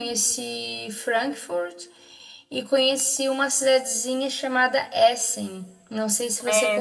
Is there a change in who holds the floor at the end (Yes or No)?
Yes